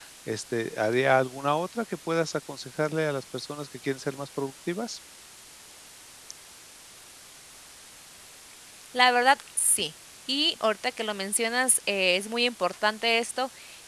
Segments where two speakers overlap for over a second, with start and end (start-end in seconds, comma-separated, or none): none